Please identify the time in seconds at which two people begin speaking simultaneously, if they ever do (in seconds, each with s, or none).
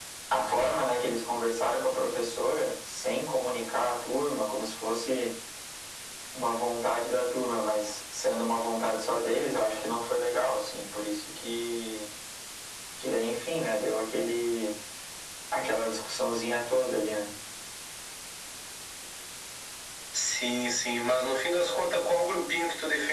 none